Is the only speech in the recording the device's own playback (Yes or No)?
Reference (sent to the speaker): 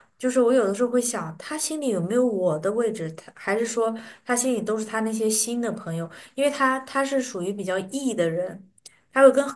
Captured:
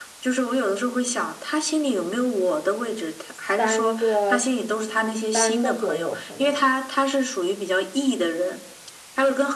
No